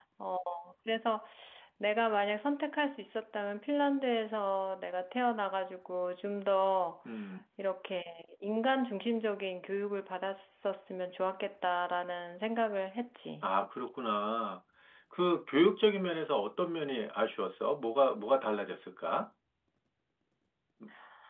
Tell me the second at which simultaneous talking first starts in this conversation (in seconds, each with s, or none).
none